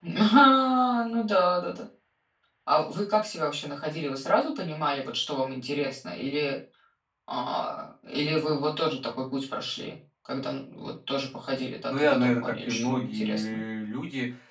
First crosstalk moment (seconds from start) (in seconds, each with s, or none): 11.9 s